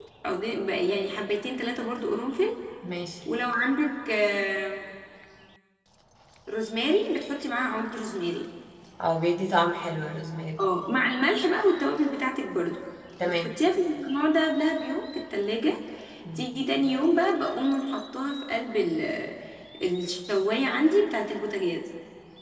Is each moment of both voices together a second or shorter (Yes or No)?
Yes